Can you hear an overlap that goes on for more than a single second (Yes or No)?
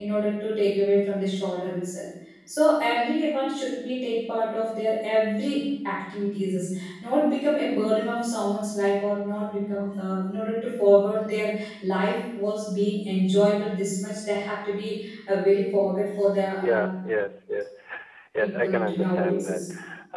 Yes